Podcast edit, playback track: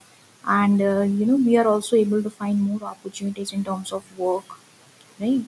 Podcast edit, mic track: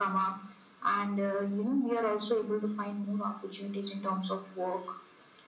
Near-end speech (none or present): none